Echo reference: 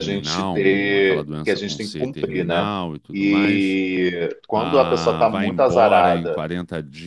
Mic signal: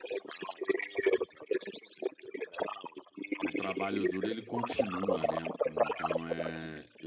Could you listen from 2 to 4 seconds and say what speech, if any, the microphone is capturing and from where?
both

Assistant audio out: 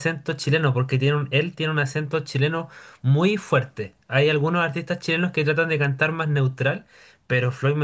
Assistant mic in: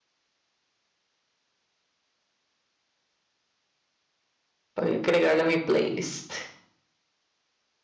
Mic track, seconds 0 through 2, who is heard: neither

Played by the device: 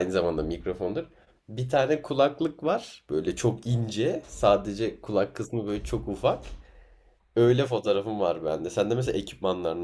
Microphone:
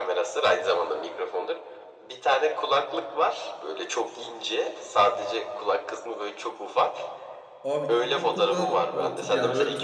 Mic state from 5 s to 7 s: echo only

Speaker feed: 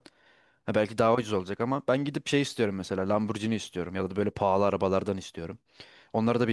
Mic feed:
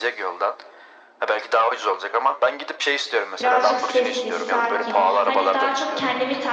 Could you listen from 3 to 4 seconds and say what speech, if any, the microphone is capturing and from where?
both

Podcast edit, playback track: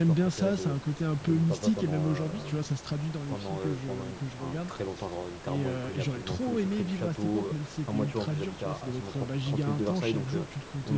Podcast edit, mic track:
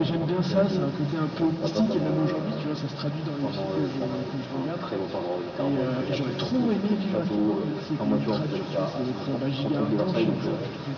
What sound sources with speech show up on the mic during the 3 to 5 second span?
echo only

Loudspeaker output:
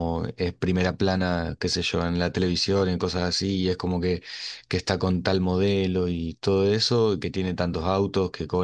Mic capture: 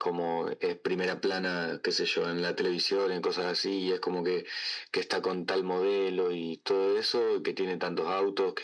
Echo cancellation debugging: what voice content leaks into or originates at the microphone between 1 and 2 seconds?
echo only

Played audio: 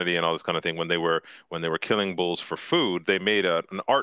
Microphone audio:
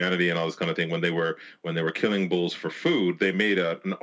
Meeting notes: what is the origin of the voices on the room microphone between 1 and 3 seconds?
echo only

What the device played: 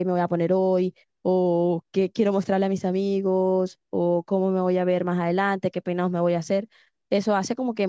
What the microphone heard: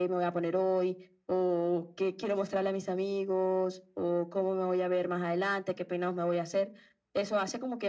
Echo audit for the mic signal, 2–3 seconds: echo only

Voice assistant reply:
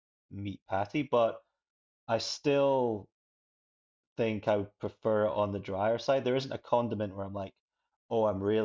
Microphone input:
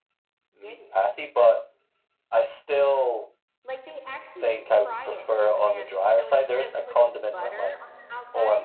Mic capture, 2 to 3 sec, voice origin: echo only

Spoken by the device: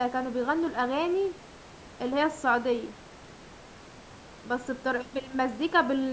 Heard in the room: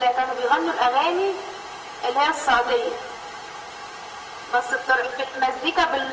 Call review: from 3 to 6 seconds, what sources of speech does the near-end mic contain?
echo only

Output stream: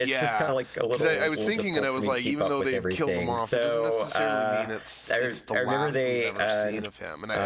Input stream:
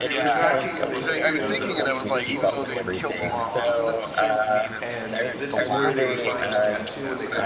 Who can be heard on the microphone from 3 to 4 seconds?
both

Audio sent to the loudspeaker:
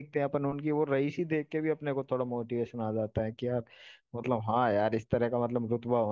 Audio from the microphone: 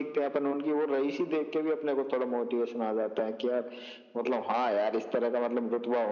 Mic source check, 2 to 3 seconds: echo only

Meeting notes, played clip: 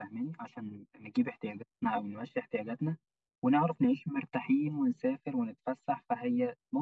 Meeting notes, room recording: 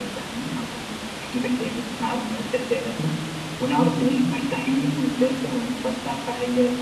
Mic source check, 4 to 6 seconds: echo only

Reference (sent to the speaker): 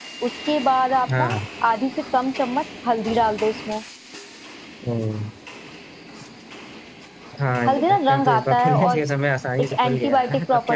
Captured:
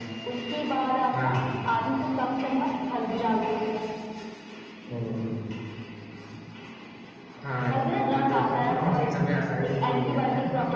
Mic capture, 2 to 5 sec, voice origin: echo only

